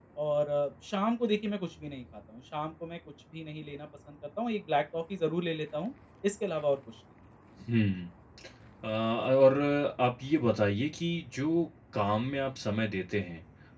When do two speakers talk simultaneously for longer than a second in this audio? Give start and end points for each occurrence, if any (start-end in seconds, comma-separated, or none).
none